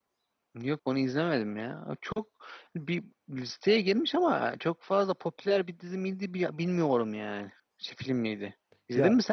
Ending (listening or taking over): taking over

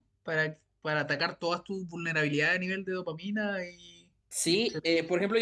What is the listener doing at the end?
taking over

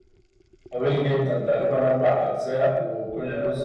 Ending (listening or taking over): listening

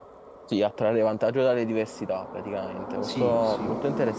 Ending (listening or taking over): listening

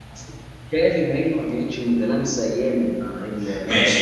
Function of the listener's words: taking over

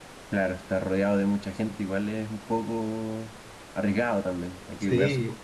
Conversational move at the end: taking over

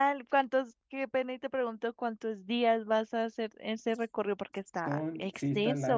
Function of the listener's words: taking over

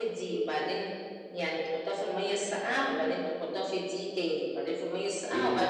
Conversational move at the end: taking over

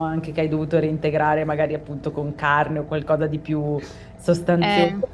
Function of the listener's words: listening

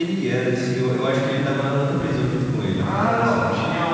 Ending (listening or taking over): taking over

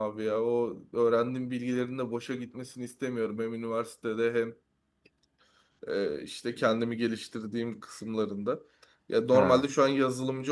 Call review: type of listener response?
listening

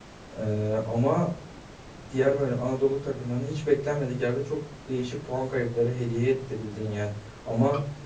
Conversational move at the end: listening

